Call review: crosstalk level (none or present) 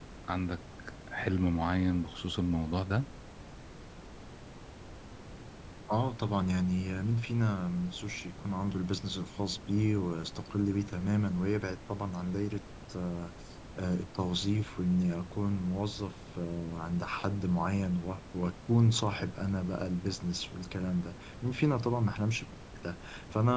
none